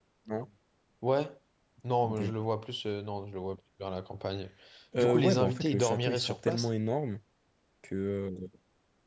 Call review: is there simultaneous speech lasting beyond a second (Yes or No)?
Yes